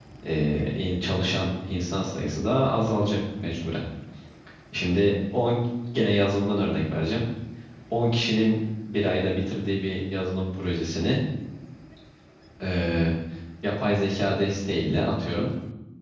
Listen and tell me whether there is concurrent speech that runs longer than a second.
No

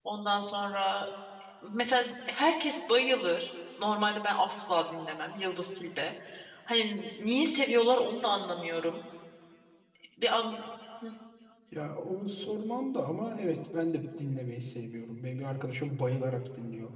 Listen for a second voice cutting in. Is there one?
No

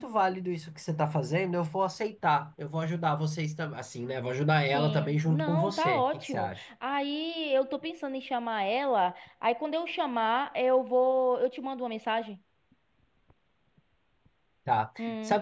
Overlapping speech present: Yes, from 4.7 s

